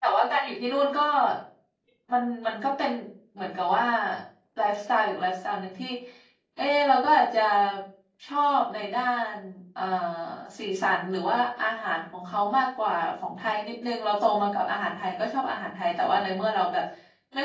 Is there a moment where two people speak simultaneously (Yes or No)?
No